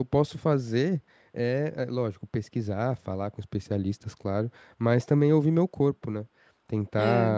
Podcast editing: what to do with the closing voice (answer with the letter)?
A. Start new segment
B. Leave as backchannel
B